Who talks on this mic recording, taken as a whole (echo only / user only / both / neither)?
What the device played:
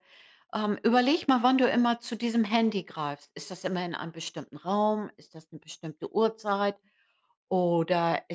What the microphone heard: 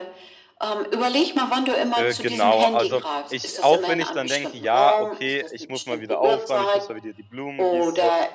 both